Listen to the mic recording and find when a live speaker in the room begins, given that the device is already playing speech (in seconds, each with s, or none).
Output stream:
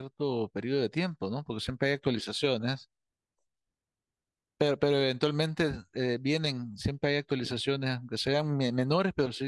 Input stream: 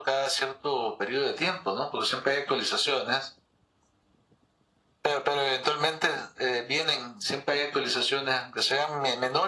none